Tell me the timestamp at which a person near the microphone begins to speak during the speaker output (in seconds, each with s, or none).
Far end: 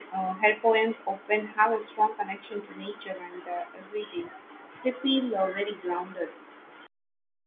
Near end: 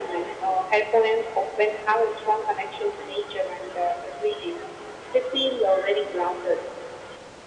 none